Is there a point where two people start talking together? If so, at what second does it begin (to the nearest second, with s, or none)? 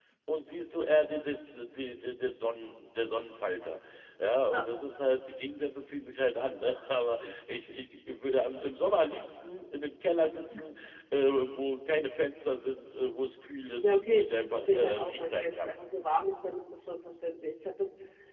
14 s